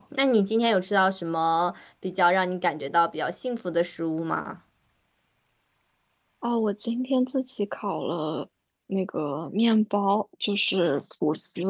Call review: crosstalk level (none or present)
none